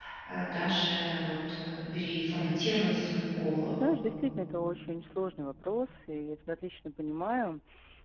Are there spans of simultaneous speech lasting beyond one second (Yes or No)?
No